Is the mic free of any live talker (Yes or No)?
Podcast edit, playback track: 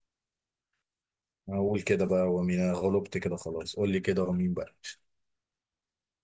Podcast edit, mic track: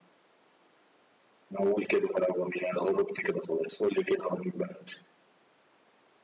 Yes